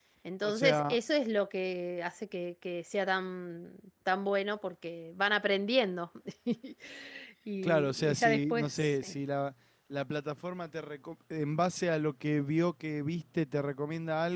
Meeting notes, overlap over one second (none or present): present